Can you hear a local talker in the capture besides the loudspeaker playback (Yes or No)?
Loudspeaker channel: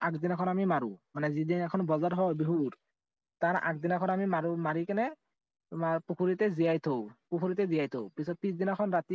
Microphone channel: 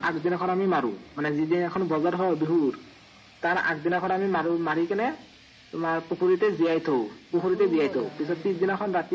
Yes